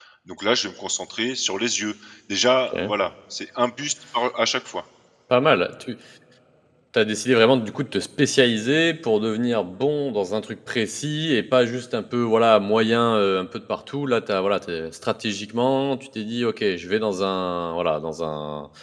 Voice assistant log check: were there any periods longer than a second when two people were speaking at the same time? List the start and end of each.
none

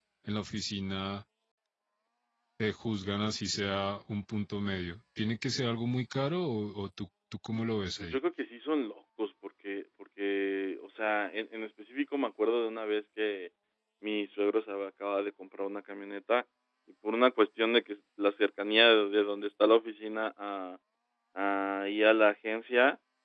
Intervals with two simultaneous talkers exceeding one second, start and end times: none

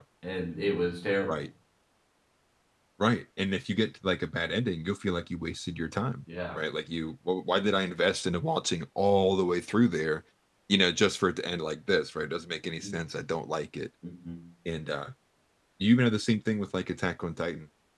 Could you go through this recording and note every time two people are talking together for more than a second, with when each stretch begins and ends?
none

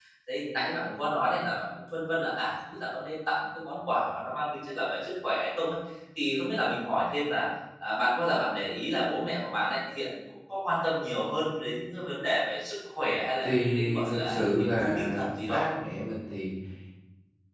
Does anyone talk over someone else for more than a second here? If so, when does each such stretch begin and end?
13.4-15.7

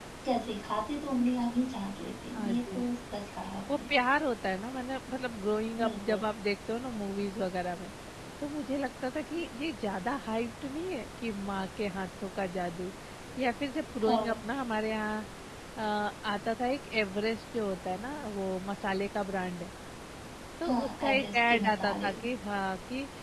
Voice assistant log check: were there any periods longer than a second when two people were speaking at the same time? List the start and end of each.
20.6-22.2

